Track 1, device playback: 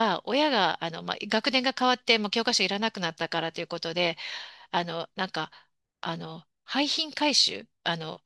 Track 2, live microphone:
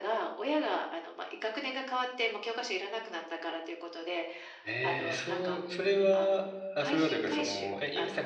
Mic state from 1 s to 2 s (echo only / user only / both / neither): echo only